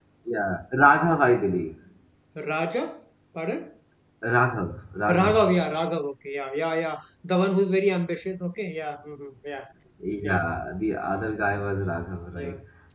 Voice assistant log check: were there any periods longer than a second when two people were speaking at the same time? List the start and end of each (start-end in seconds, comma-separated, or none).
none